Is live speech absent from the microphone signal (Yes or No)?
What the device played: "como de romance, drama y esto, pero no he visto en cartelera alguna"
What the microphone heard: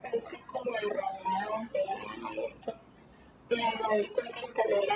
Yes